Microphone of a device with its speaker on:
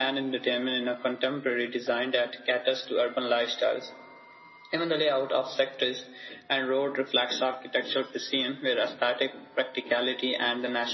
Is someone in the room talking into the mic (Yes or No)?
No